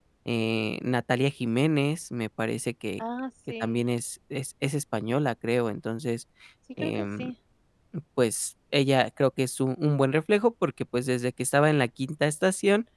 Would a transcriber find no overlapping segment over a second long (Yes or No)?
Yes